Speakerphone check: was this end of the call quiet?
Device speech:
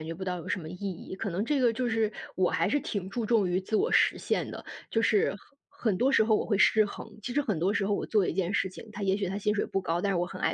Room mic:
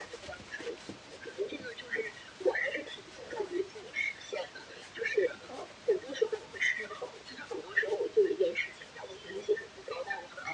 Yes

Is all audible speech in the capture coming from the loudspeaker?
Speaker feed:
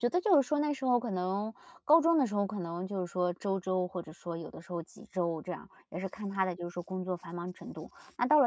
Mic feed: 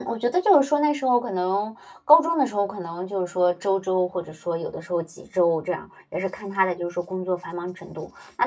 Yes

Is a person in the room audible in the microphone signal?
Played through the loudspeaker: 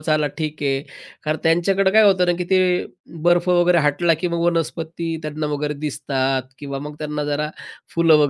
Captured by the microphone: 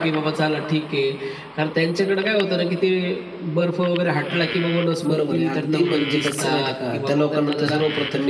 Yes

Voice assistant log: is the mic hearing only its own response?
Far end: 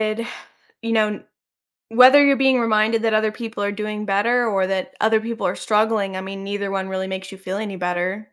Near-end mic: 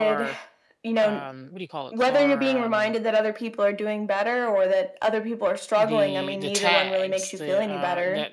No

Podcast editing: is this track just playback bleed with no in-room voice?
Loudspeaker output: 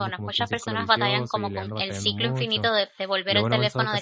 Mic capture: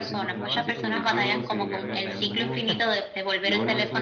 No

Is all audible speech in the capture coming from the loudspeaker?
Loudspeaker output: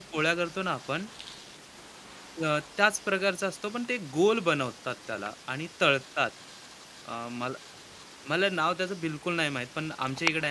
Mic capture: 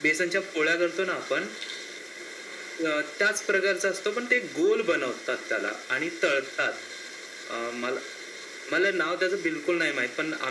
Yes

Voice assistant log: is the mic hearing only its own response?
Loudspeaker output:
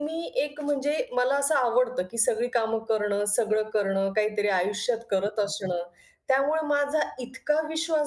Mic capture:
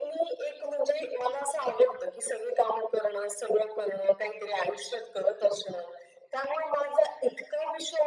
Yes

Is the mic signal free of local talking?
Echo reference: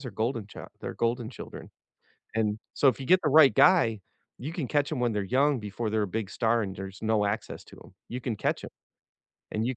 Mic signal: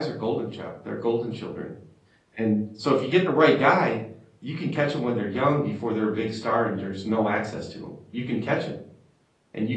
Yes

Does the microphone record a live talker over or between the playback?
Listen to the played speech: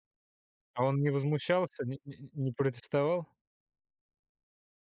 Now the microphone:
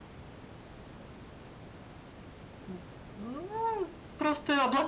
Yes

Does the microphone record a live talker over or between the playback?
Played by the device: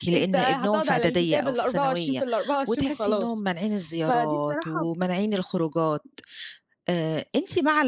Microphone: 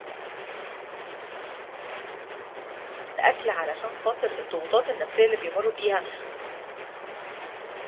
Yes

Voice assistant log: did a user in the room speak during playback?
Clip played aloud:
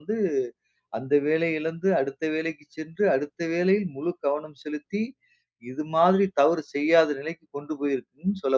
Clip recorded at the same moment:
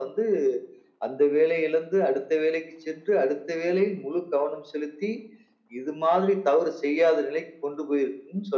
No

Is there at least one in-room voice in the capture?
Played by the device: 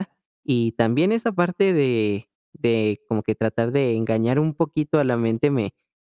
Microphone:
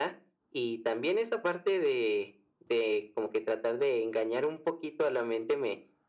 No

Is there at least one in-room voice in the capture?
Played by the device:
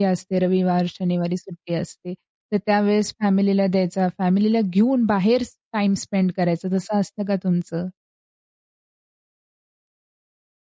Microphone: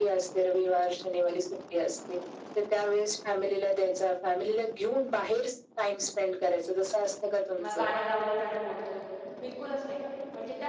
Yes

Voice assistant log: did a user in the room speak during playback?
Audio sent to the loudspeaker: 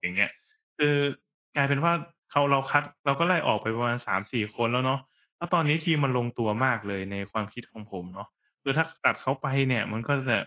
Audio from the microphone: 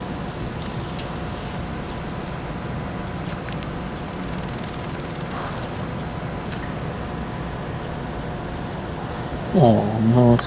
Yes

